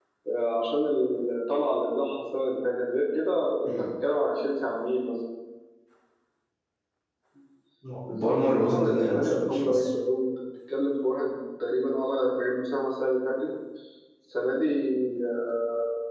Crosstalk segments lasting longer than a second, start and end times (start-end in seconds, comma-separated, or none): 8.1-9.9